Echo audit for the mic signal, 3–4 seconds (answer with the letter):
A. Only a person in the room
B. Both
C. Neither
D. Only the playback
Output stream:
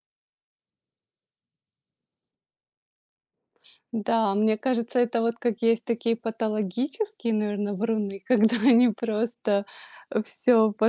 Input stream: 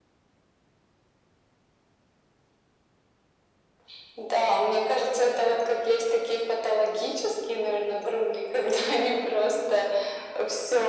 C